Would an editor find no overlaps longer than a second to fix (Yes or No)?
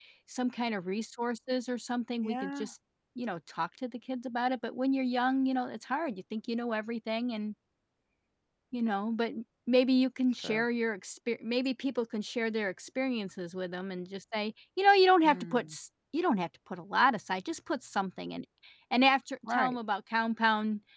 Yes